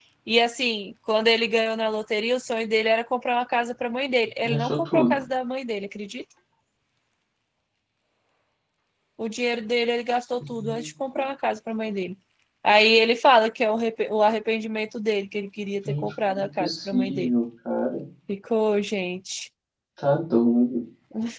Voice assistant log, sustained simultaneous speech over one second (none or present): present